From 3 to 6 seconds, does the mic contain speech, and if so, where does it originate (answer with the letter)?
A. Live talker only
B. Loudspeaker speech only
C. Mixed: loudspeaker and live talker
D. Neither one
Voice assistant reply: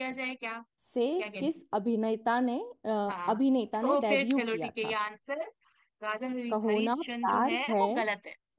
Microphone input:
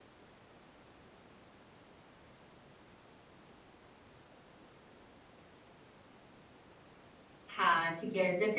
D